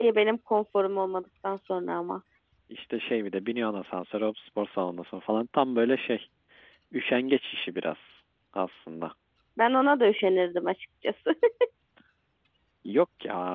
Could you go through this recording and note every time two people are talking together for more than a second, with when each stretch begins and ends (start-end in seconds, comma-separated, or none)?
none